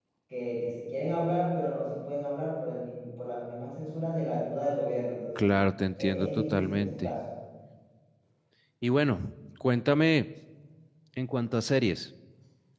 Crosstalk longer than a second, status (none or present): present